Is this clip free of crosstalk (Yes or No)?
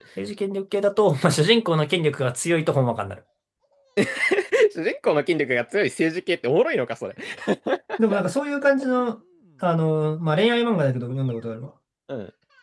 Yes